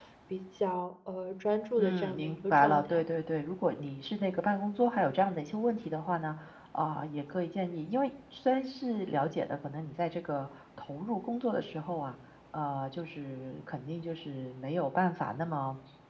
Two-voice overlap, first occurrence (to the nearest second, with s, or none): 2 s